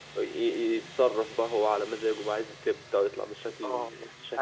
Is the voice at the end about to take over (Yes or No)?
Yes